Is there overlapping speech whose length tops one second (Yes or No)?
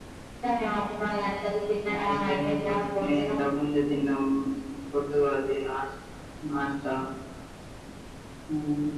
Yes